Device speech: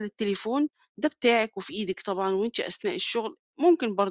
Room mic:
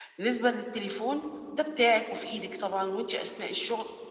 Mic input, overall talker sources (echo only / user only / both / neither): echo only